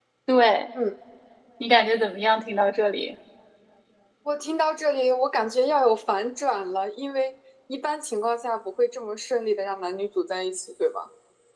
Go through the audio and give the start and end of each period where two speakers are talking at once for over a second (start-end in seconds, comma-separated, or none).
none